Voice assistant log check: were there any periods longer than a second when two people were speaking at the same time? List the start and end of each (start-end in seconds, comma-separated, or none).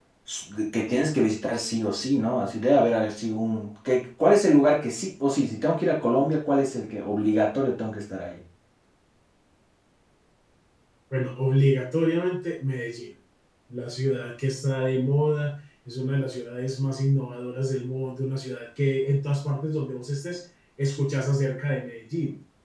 none